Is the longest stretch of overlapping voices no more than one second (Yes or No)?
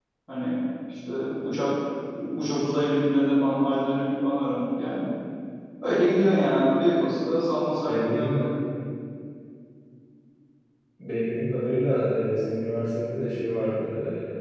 Yes